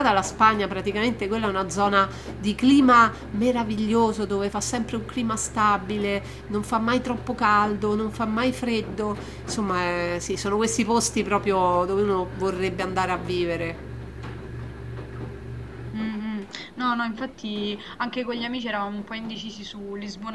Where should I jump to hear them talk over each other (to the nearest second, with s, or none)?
none